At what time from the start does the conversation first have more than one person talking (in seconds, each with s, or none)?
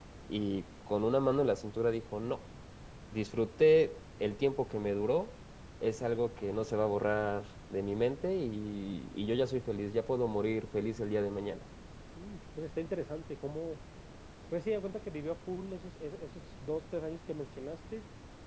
none